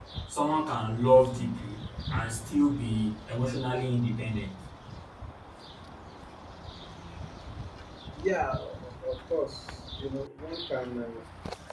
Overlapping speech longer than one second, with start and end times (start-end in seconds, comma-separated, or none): none